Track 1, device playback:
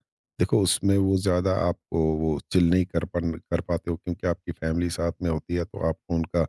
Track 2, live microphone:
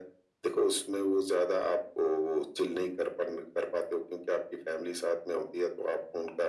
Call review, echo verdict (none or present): present